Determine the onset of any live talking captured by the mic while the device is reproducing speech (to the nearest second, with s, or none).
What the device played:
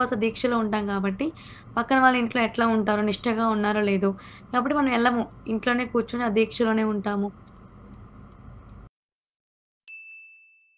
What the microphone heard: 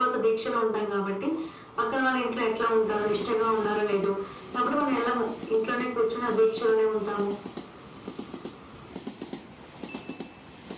none